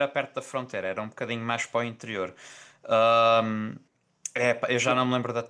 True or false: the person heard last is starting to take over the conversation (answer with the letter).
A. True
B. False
B